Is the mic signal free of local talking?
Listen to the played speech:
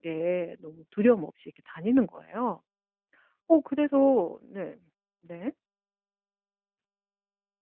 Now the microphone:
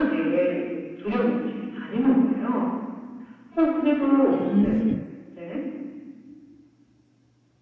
No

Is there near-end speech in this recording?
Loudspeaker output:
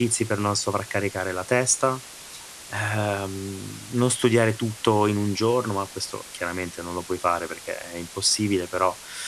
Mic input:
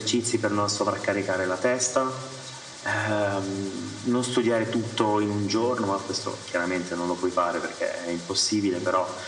No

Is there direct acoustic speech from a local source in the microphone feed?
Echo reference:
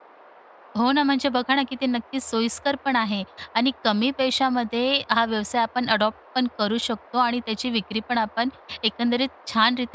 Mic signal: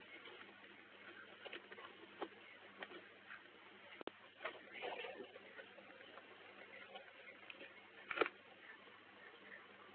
No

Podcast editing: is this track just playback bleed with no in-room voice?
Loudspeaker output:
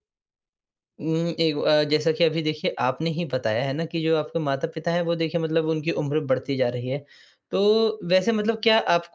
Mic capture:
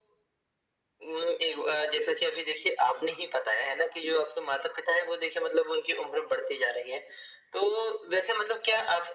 Yes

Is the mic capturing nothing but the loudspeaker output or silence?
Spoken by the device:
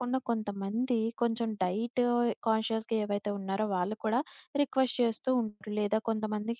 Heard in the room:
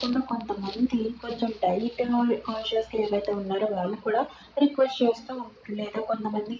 Yes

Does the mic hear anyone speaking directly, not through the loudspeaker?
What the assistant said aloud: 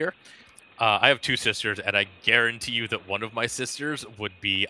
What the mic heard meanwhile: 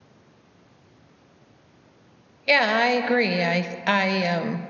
Yes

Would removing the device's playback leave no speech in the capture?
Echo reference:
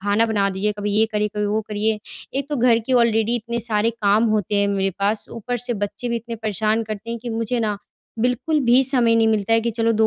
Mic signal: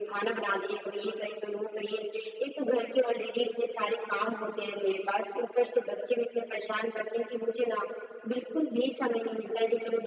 Yes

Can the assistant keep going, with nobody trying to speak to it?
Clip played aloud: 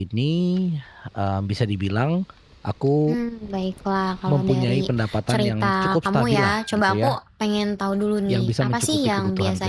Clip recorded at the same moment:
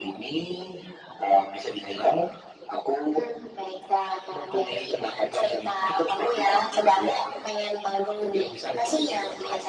Yes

